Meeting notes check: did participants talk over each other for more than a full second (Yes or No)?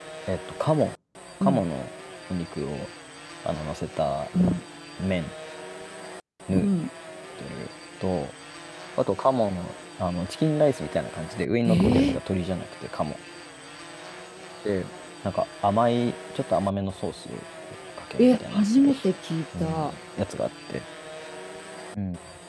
No